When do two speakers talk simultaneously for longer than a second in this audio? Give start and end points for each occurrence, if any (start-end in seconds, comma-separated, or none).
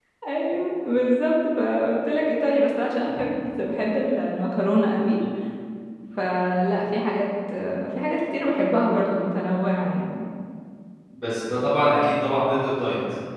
none